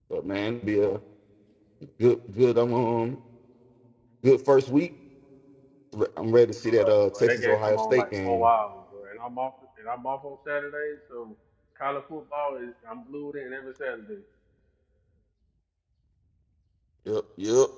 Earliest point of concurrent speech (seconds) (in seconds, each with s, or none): 6.7 s